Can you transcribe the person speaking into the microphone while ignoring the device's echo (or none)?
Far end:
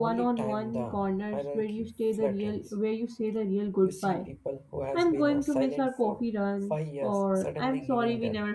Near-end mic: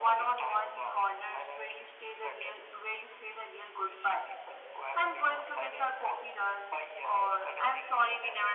none